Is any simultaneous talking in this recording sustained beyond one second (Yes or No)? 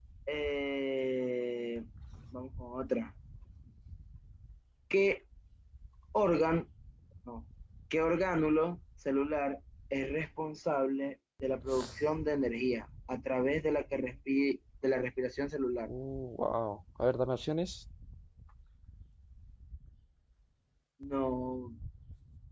No